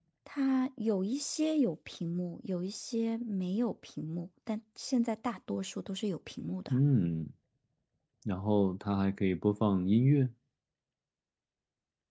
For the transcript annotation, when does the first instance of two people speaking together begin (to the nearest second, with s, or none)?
none